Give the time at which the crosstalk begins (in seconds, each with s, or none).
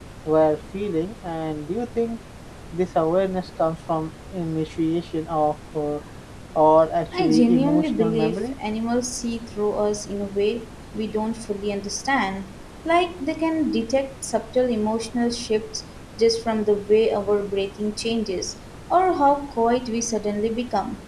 7.2 s